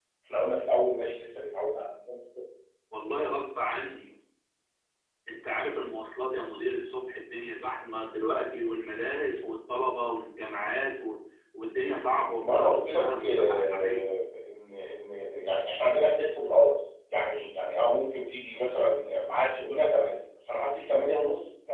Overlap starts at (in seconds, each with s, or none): 12.4 s